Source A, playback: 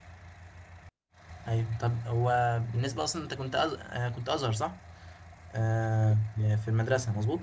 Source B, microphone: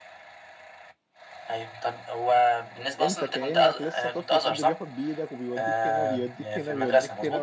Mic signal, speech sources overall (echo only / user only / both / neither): both